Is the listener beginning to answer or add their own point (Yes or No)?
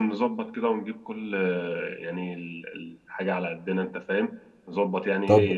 Yes